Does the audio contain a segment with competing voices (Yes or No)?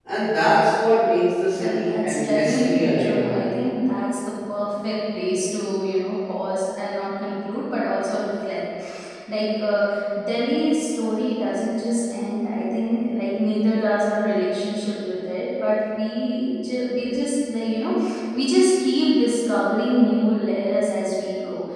Yes